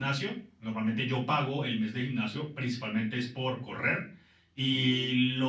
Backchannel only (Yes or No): Yes